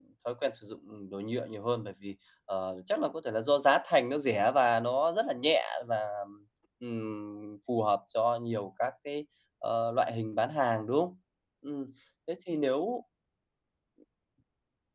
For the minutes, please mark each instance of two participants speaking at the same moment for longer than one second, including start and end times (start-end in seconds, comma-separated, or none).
none